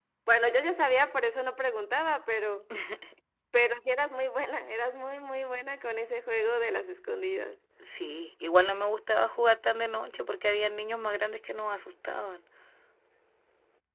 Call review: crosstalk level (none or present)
none